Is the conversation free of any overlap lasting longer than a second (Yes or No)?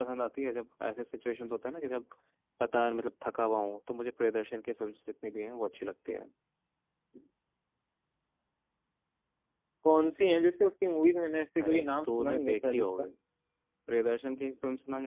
No